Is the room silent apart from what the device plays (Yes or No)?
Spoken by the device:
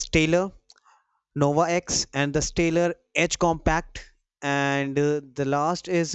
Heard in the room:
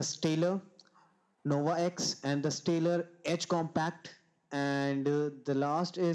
Yes